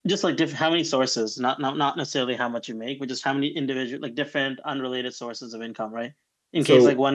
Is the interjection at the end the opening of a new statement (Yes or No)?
No